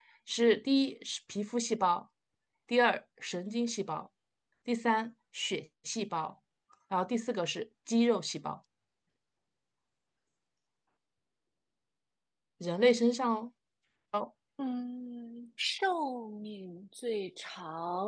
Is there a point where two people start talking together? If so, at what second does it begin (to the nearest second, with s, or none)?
none